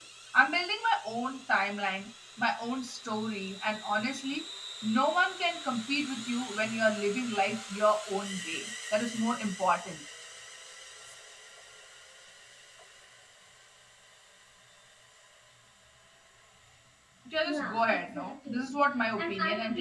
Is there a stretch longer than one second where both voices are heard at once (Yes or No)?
Yes